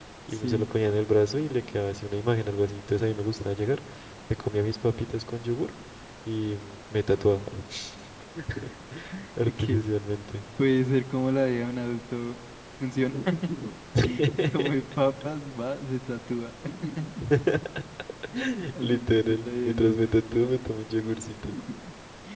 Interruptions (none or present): present